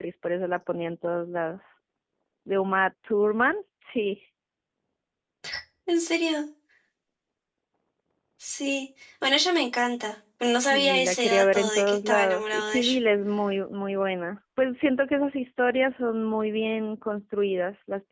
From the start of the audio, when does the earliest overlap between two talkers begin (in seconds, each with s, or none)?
10.7 s